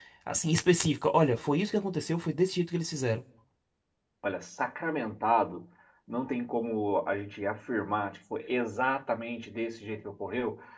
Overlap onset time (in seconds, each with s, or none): none